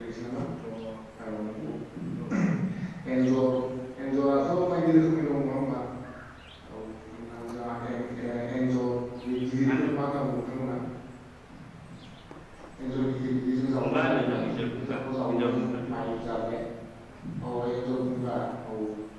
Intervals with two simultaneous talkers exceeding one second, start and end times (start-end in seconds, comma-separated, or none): 13.8-16.1